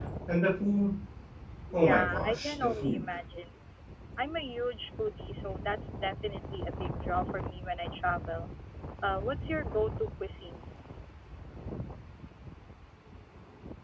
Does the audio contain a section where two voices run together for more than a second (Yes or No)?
Yes